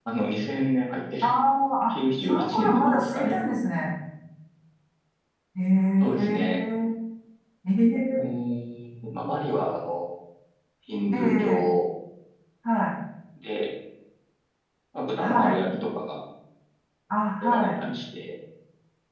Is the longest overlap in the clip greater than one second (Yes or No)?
Yes